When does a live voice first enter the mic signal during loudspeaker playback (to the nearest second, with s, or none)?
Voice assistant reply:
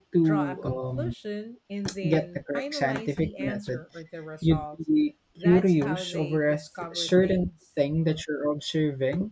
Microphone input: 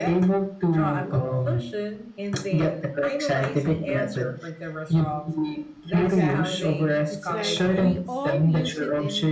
6 s